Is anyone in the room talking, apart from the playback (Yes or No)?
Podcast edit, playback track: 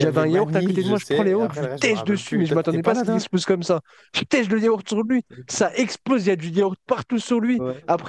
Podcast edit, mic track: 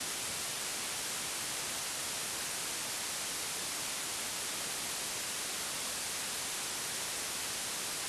No